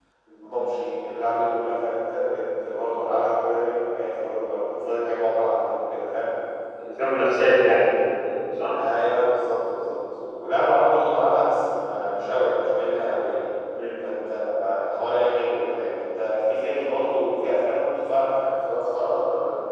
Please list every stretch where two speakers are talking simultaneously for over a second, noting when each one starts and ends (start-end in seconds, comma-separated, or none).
none